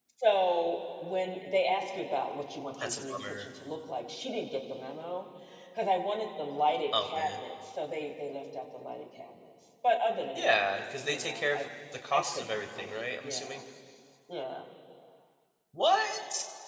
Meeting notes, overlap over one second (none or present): present